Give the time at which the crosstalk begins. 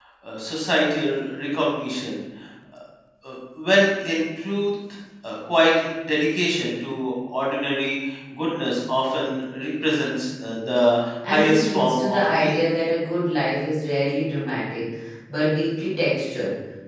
11.2 s

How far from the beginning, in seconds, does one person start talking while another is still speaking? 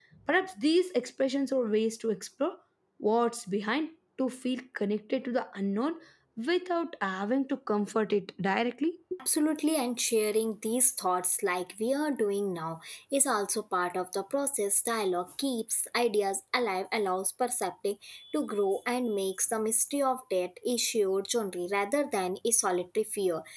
none

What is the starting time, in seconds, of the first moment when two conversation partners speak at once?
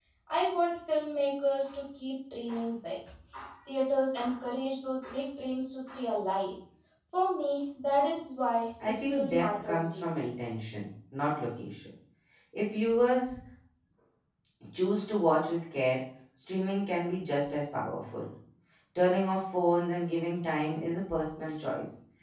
8.8 s

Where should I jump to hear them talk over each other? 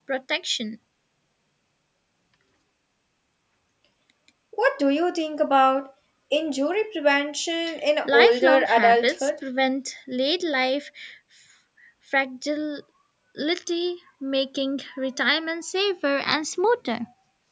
8.0 s

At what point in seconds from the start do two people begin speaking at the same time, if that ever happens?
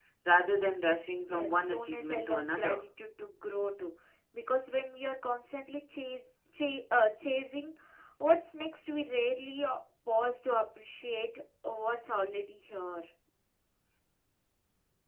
1.3 s

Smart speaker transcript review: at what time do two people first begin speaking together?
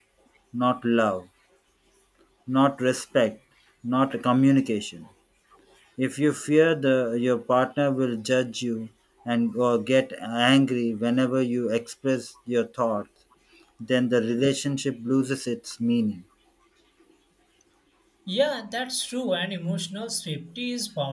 none

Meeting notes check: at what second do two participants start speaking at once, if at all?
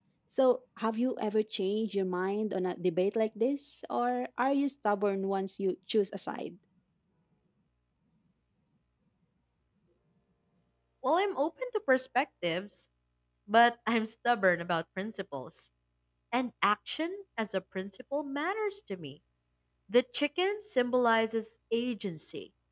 none

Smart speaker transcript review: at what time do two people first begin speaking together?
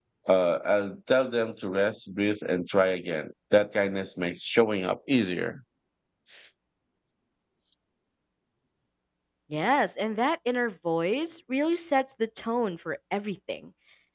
none

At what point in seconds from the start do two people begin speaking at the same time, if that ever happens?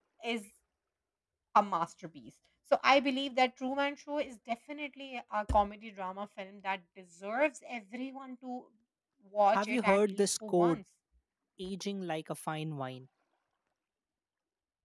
9.5 s

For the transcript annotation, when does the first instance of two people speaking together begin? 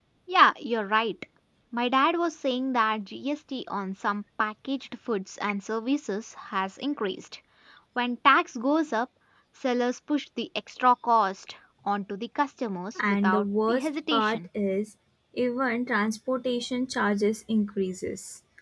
13.0 s

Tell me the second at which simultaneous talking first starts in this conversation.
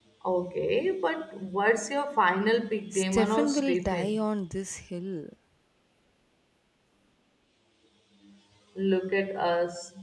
2.9 s

